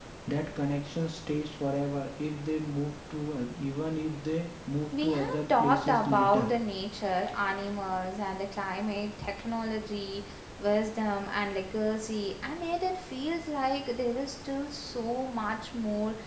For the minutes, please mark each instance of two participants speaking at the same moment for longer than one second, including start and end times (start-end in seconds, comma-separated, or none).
5.0-6.5